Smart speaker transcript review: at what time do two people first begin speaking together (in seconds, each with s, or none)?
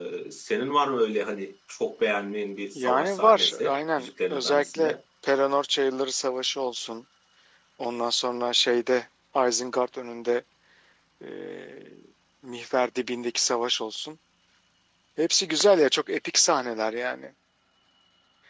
2.8 s